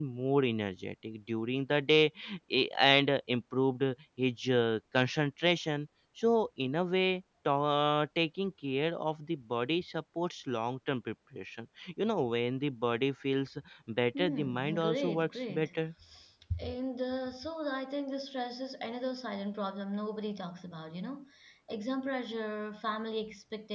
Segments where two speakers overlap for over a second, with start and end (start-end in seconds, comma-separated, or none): 14.2-15.7